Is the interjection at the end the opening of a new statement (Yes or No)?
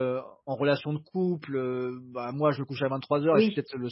No